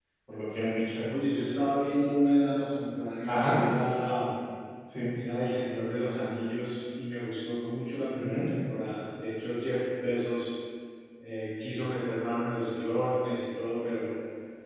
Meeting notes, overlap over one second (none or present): none